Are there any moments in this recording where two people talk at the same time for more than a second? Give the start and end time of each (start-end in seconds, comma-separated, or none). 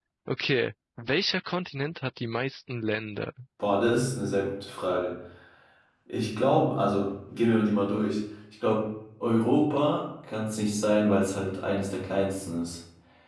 none